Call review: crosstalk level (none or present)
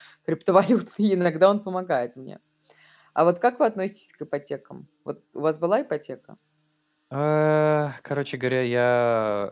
none